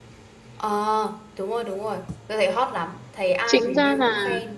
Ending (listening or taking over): taking over